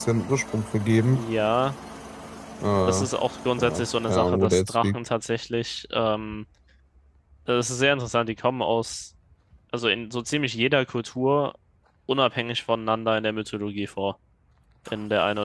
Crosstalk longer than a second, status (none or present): present